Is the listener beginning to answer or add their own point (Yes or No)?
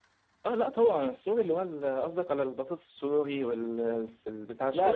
Yes